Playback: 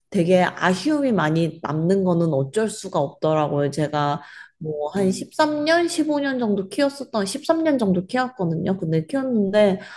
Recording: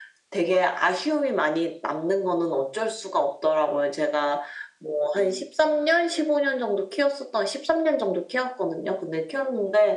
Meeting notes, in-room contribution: none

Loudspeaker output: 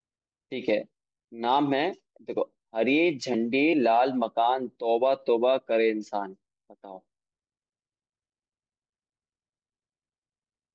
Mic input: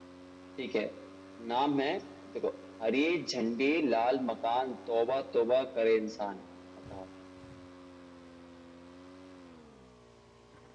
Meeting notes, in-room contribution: none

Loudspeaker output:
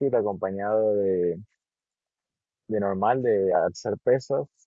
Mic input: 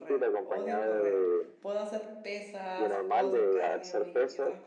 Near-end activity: present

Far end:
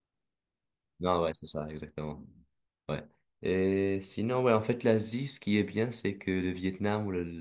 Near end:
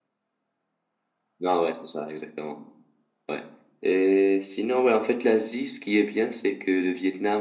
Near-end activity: none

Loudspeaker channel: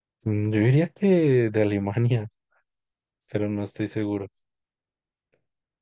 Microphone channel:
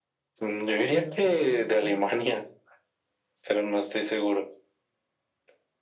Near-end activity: present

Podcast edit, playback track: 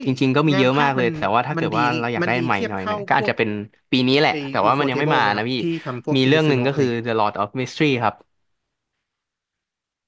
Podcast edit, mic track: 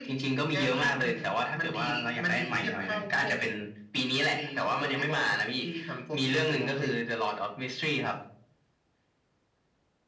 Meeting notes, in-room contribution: none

